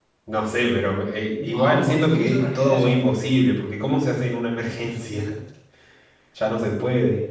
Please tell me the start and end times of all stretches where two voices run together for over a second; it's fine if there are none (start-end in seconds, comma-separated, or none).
1.4-3.0